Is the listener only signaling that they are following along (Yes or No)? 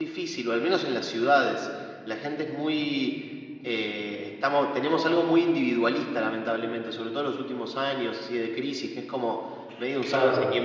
Yes